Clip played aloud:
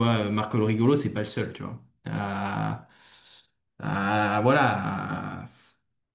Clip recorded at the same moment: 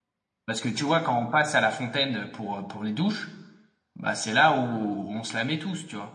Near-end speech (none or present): present